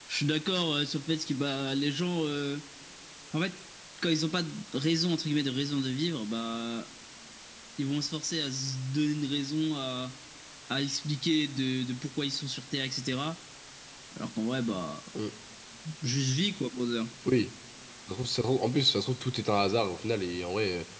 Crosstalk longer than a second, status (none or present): none